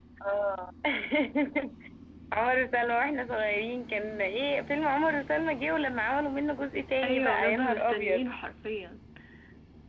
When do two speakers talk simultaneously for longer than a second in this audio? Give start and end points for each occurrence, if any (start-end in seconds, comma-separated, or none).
7.0-8.2